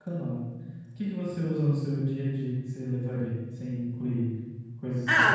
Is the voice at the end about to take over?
Yes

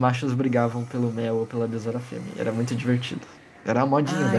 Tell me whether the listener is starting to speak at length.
Yes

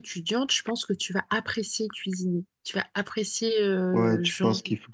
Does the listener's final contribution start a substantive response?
Yes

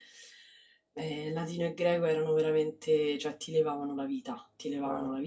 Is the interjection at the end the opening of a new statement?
No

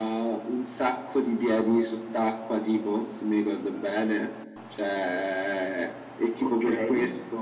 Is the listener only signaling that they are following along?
Yes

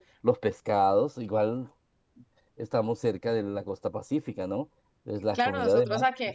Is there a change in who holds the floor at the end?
Yes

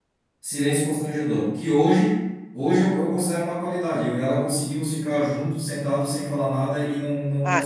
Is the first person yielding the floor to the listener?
Yes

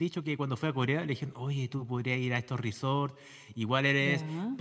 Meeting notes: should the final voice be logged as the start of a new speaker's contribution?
No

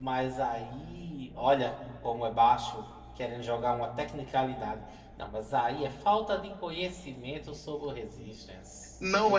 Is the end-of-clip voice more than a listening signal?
Yes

